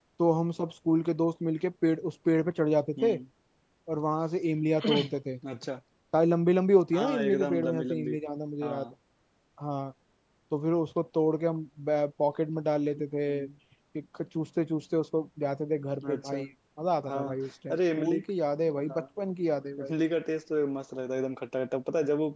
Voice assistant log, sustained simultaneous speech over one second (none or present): present